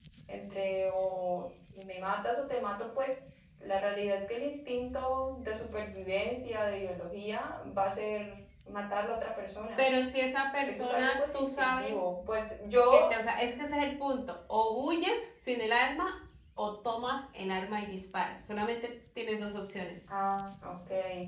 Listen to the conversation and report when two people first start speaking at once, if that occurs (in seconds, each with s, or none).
10.6 s